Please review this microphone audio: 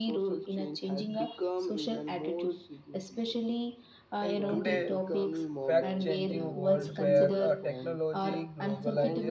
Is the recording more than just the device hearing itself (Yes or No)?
Yes